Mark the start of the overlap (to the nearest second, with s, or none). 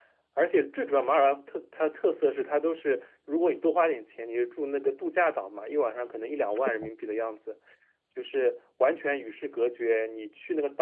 none